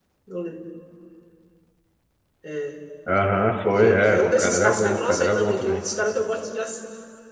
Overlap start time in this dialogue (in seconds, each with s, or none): 3.8 s